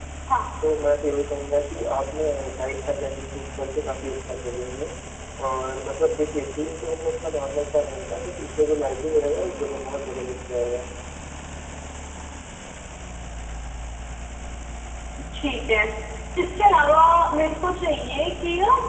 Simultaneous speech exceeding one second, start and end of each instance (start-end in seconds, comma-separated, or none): none